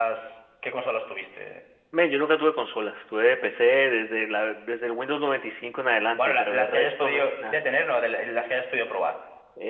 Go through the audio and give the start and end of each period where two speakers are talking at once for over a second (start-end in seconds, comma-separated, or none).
6.2-7.6